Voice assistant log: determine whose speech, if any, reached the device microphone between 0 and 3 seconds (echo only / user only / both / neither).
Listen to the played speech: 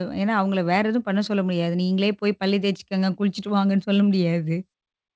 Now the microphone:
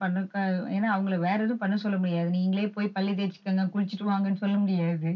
echo only